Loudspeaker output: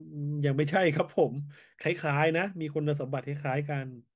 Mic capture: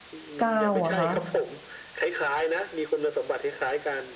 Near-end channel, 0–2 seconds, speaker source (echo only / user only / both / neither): both